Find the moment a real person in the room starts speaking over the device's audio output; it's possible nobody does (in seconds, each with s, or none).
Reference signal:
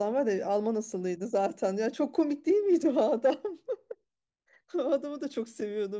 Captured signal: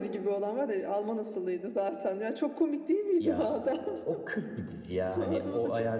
3.2 s